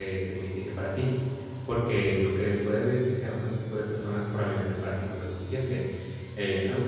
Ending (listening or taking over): listening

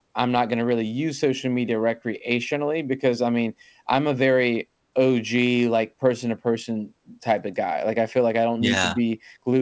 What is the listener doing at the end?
listening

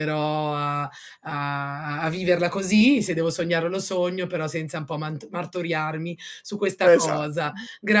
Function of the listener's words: listening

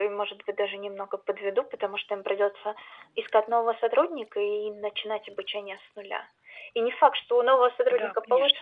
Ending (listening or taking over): listening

